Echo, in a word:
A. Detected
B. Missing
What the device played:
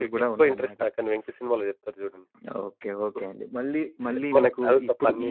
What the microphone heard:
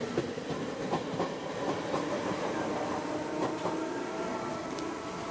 B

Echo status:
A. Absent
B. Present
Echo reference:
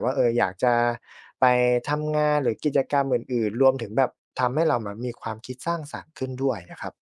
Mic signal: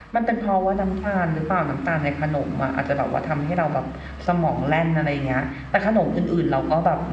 A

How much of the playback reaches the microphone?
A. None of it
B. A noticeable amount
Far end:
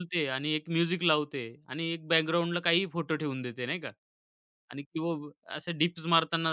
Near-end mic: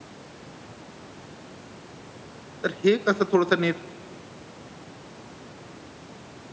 A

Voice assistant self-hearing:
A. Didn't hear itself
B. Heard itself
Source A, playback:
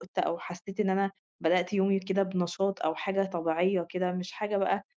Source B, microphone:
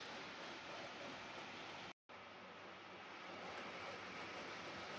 A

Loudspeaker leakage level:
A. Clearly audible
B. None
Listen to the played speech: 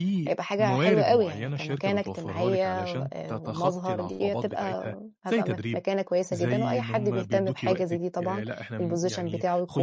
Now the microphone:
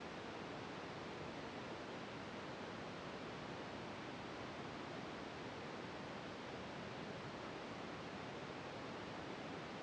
B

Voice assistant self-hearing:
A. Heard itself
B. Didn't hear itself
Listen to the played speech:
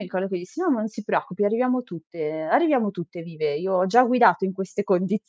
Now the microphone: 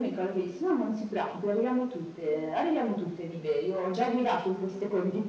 A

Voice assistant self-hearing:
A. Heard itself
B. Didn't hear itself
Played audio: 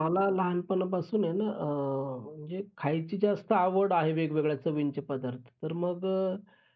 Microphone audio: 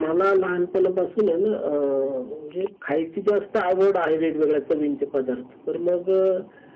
A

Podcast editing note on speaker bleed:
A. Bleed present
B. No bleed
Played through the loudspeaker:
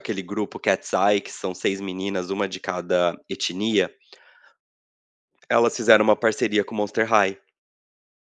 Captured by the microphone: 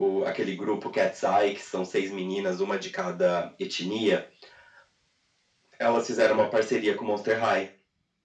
A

